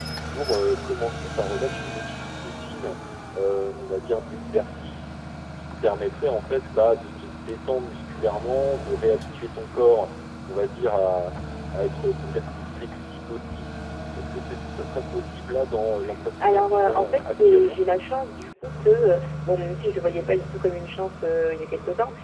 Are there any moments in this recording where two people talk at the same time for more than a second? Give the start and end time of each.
16.4-17.8

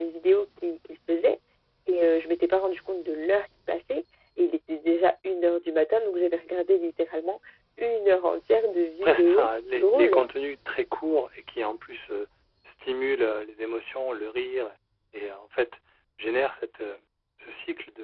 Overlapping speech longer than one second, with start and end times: 9.0-10.2

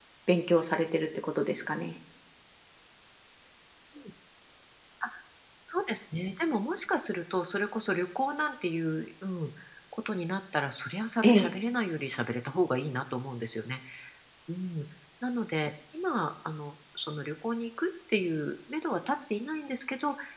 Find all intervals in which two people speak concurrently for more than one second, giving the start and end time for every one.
none

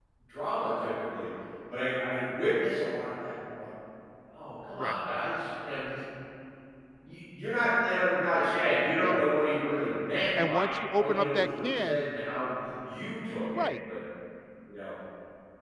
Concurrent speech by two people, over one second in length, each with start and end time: 10.4-12.0

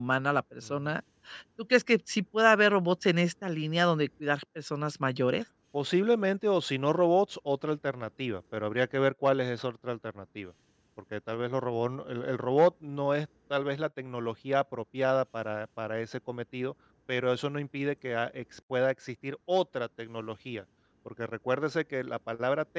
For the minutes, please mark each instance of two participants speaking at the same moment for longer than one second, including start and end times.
none

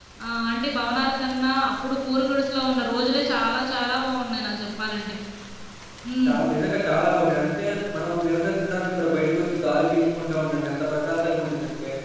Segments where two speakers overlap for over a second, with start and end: none

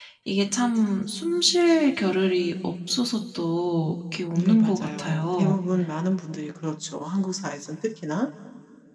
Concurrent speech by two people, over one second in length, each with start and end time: 4.3-5.5

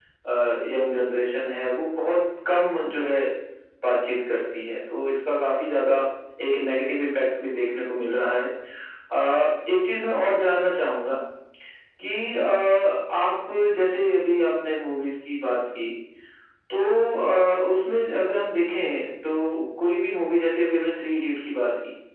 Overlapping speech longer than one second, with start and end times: none

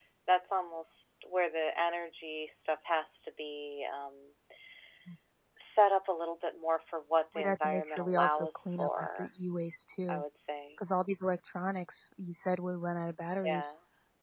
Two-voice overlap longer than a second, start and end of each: 7.4-9.3

